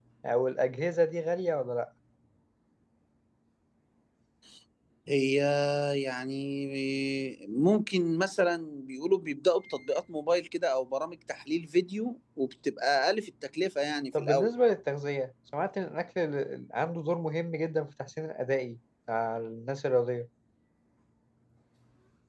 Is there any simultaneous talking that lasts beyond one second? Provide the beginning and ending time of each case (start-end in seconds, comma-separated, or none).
none